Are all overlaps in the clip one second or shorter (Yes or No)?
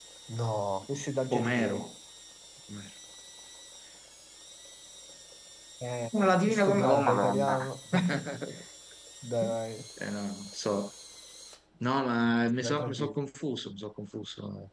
No